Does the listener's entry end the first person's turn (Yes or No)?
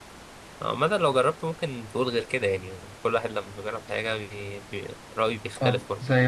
Yes